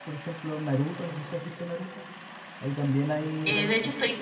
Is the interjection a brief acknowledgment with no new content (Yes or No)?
No